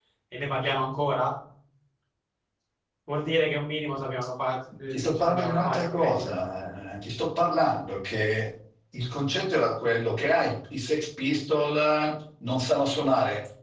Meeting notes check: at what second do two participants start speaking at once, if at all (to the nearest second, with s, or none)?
5 s